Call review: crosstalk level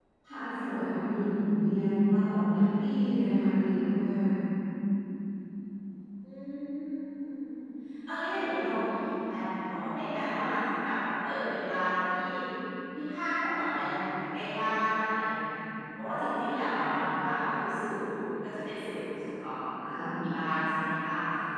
none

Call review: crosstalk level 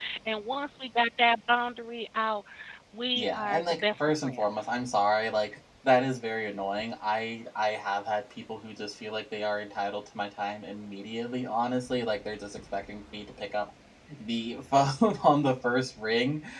present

